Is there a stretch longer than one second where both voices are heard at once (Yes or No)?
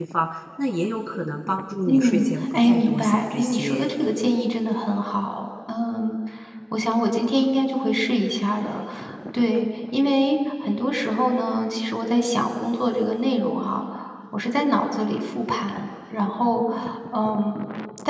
Yes